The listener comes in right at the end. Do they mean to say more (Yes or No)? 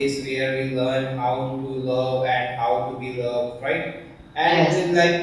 No